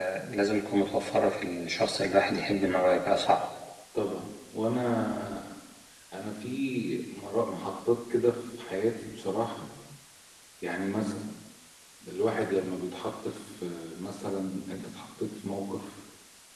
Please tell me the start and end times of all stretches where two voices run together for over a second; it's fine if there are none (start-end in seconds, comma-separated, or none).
none